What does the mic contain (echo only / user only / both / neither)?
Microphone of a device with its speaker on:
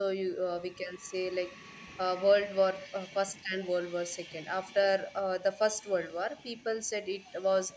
user only